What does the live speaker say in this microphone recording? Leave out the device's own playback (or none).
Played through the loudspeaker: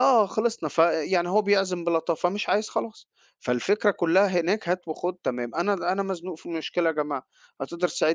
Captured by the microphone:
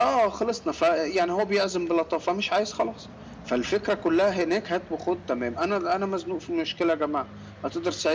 none